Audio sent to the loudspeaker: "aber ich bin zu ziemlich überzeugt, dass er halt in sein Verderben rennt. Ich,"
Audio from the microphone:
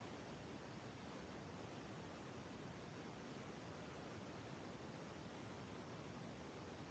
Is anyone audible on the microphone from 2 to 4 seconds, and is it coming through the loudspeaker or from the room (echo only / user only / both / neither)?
neither